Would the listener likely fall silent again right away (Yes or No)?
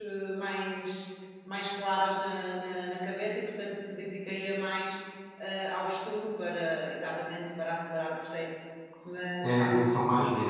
No